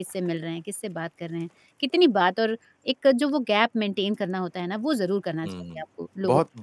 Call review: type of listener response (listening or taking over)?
taking over